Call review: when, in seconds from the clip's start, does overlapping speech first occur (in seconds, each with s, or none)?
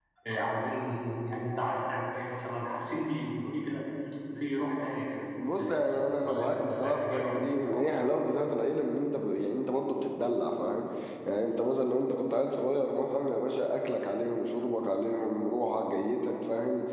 5.4 s